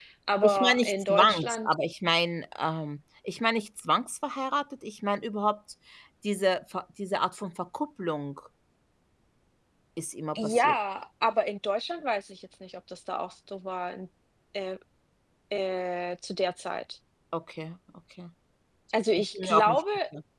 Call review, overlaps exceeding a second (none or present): present